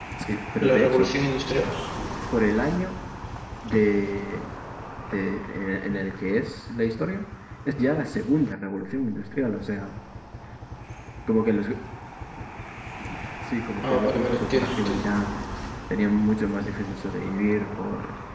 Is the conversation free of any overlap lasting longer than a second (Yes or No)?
No